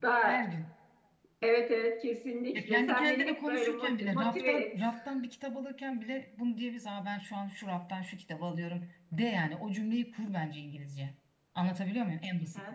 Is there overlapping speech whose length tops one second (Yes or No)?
Yes